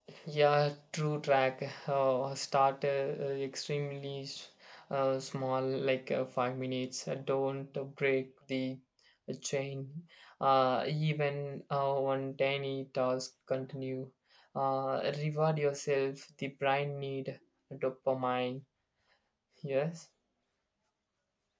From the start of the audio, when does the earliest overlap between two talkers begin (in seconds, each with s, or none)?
none